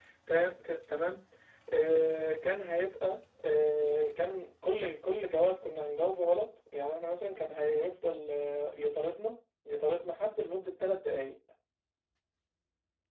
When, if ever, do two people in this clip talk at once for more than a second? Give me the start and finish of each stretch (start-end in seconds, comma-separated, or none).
none